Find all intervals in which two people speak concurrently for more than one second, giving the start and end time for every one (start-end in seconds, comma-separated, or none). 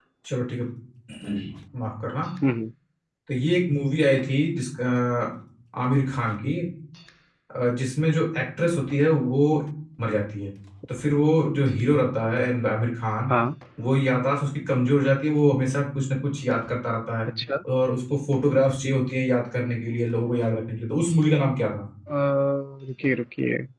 none